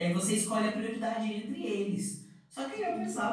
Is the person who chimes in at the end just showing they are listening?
Yes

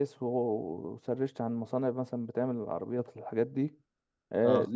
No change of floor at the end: Yes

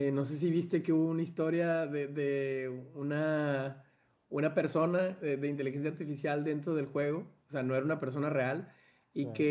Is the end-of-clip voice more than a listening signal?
No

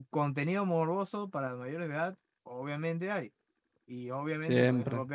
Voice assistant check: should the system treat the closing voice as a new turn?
No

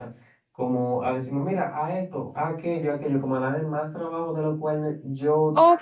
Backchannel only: No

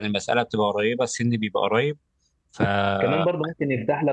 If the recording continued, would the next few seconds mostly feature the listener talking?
Yes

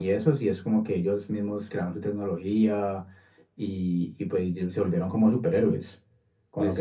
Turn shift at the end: Yes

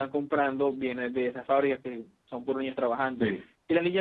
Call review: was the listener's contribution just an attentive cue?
Yes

